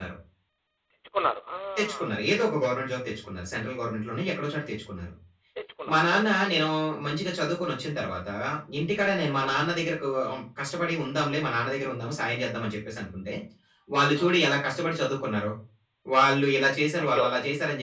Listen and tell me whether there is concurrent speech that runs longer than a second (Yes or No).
No